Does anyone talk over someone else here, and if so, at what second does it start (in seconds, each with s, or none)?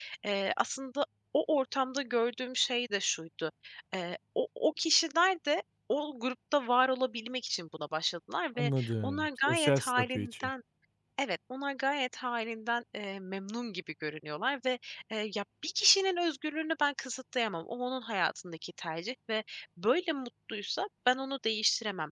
8.6 s